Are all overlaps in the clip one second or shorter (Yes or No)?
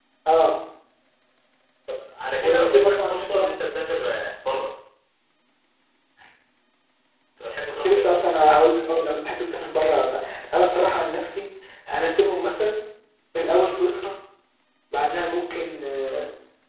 No